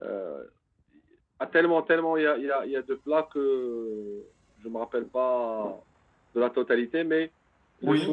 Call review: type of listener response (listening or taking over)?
listening